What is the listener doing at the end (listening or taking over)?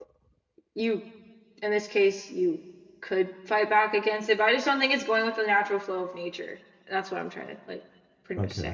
taking over